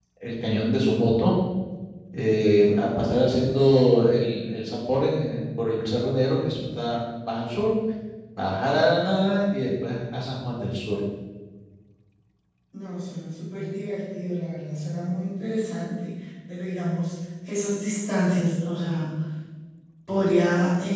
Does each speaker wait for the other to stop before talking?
Yes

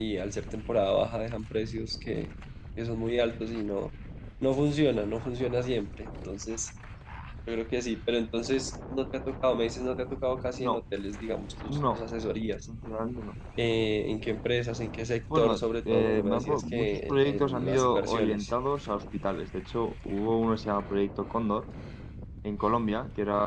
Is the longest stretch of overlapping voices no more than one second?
No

